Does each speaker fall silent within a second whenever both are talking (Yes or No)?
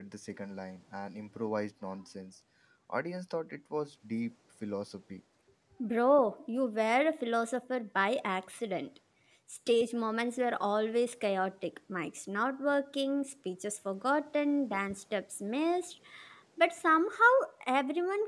Yes